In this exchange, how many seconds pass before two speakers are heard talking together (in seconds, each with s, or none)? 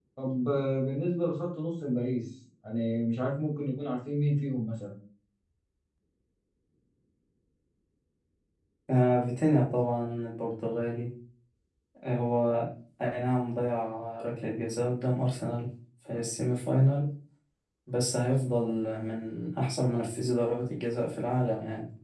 none